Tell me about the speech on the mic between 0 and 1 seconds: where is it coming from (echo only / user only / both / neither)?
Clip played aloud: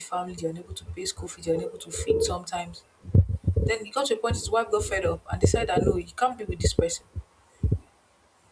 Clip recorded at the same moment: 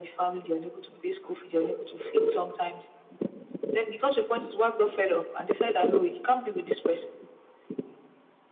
echo only